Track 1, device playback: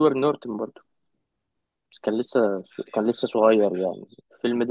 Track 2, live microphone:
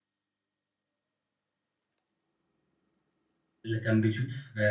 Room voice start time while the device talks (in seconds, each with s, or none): 3.6 s